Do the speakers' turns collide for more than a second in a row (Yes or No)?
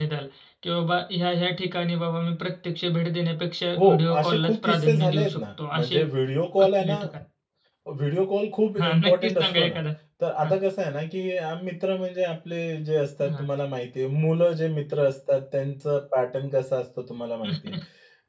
Yes